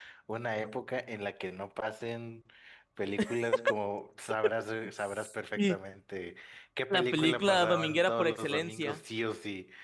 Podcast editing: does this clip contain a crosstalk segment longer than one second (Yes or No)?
Yes